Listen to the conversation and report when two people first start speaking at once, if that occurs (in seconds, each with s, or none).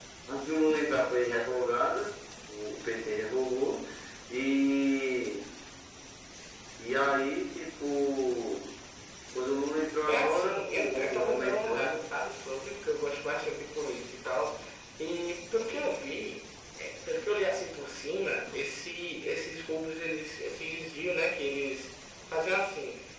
10.1 s